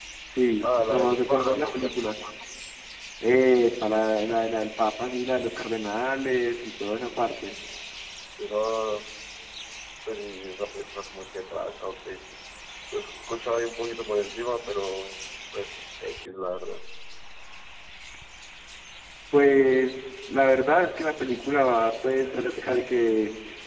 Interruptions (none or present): present